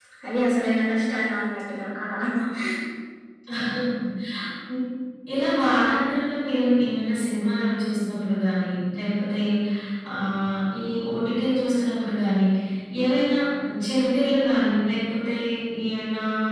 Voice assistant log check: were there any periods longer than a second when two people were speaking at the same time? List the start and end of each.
none

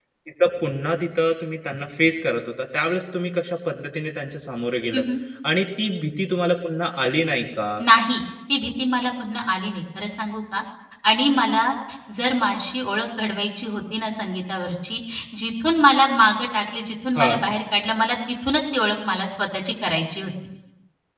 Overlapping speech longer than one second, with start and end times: none

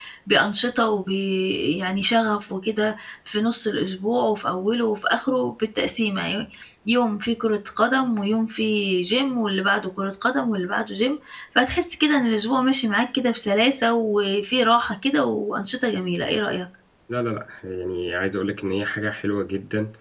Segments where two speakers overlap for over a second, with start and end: none

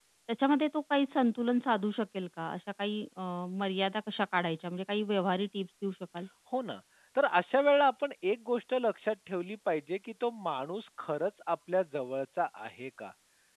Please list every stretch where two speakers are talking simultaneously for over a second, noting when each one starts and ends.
none

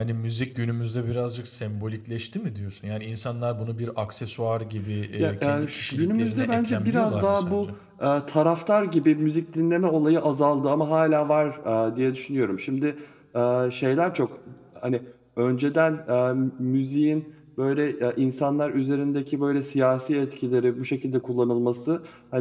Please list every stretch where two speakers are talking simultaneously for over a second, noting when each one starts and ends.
5.2-7.7

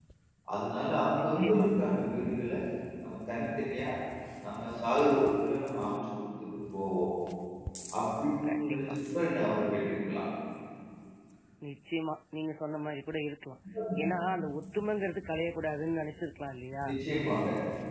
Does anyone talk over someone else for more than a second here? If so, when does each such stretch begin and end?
none

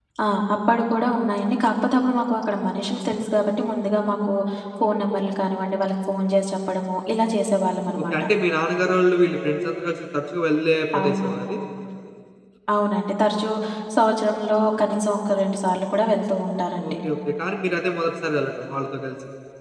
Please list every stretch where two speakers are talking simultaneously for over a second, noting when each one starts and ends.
none

